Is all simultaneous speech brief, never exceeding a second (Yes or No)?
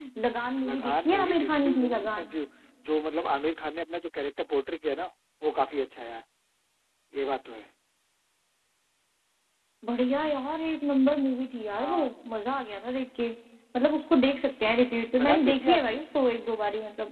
No